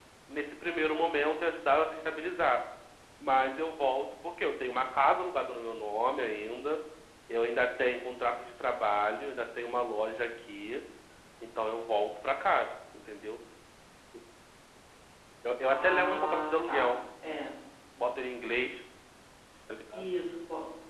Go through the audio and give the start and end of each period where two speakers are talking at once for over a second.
15.7-17.0

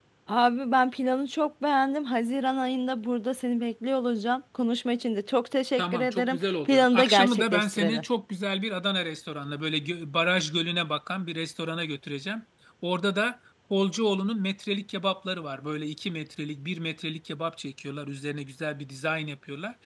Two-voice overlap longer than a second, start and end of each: 5.8-8.0

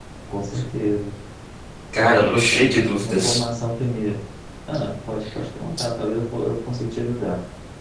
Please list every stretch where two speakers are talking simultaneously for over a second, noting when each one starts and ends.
2.0-3.4

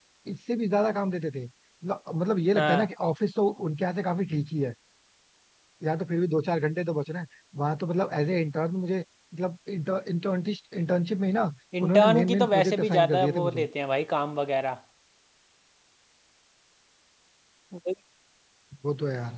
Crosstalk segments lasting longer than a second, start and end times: 11.8-13.6

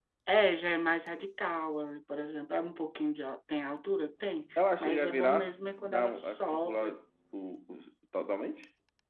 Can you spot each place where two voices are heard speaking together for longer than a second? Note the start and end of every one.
4.6-6.9

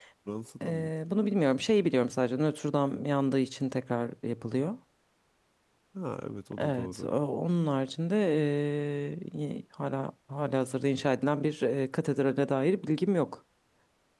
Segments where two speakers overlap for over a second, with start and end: none

